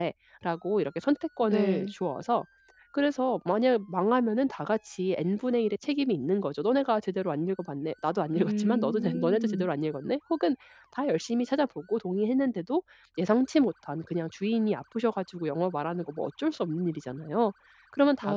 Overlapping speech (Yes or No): Yes